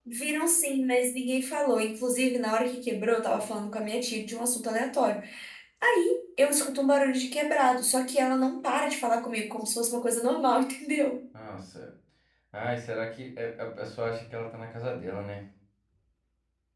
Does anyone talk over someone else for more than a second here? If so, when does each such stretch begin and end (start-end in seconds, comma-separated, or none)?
none